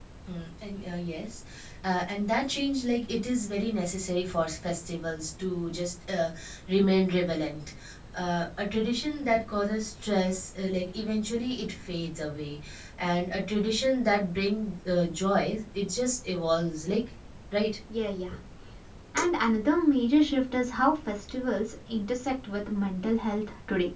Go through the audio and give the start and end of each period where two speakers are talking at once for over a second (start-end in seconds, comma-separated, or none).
none